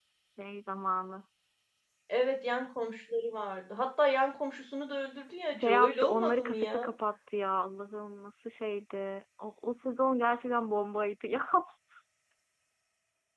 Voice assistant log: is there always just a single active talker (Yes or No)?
No